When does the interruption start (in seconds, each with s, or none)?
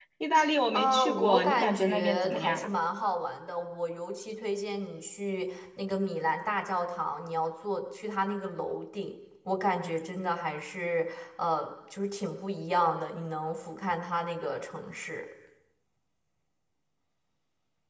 0.7 s